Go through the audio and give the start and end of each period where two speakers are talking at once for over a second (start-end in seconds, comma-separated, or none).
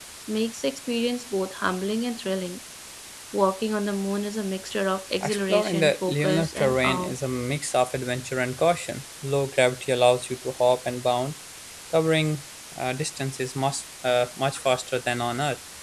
5.2-7.1